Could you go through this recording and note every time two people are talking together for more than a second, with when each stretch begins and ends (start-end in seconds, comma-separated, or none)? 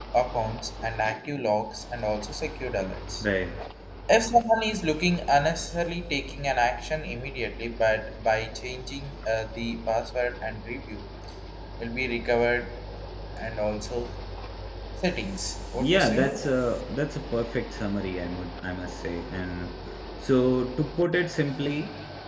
none